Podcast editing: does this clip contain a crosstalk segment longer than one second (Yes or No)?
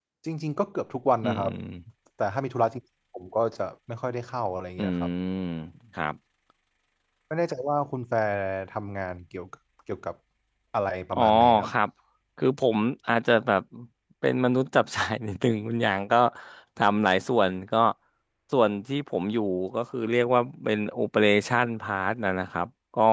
No